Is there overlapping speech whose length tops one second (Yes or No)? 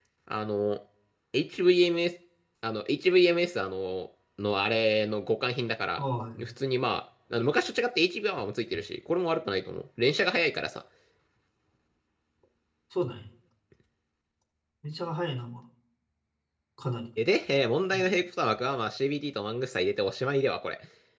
No